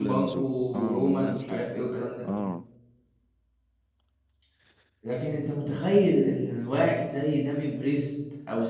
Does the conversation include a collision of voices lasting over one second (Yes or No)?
Yes